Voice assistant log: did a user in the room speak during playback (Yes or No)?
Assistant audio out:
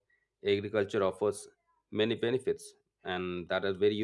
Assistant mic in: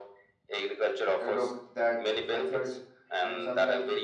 Yes